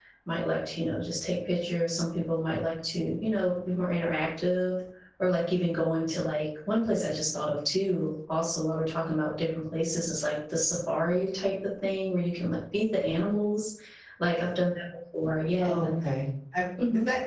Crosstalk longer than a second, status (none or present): none